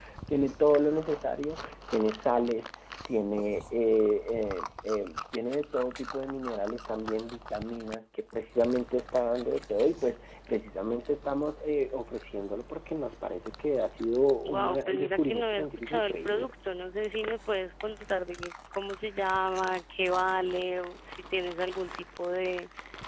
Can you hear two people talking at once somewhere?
Yes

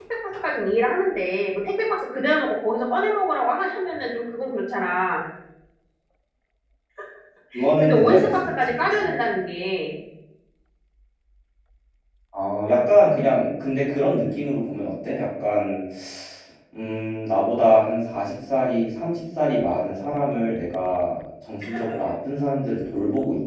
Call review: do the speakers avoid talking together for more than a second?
No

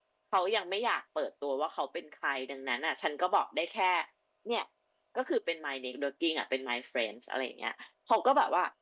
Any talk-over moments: No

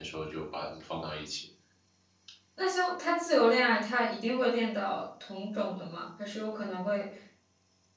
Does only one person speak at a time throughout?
Yes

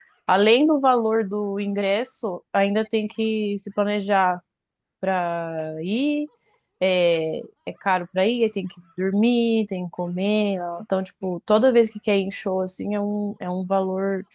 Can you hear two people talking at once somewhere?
No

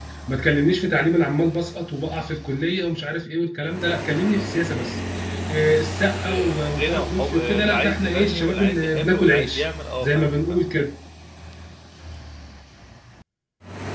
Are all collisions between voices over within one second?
No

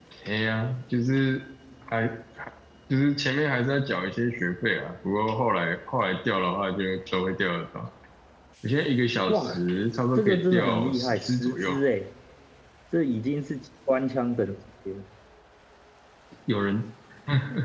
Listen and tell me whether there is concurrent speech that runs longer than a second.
Yes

